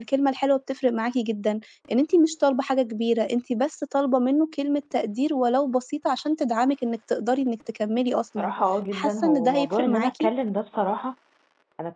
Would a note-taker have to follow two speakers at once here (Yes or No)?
Yes